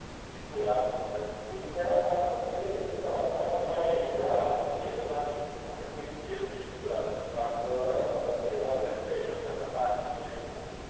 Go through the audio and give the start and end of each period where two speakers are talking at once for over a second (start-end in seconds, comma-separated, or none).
3.6-5.1